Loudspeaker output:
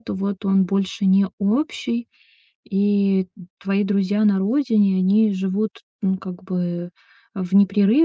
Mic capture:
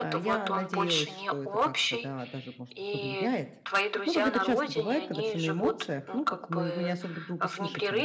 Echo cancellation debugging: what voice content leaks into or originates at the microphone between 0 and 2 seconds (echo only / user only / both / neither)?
both